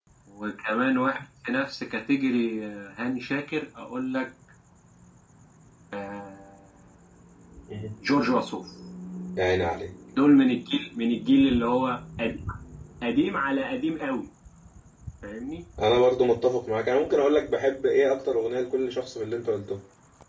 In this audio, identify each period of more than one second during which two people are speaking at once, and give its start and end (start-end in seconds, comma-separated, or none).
none